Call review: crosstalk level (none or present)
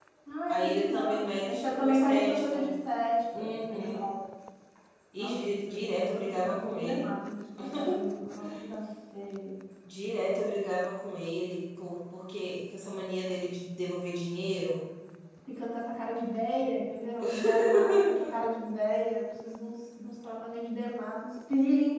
present